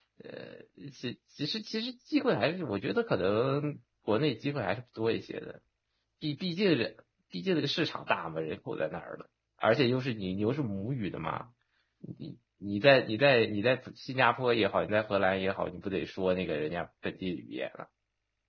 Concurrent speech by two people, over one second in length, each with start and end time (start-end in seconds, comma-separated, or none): none